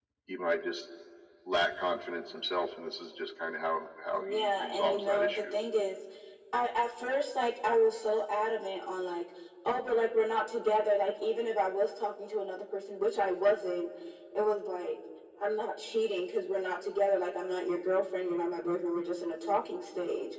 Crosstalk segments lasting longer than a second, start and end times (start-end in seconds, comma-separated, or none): 4.1-5.5